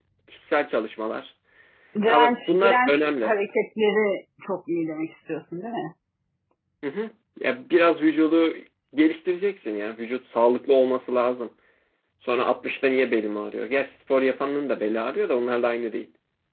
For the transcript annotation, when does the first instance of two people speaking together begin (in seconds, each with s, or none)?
2.1 s